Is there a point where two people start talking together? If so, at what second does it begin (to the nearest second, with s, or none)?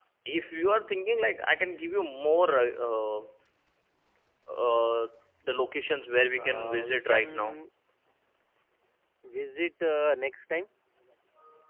6 s